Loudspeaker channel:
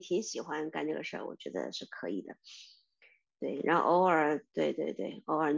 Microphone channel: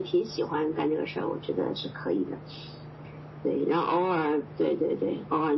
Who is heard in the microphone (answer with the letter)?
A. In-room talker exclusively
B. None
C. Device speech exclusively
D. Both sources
C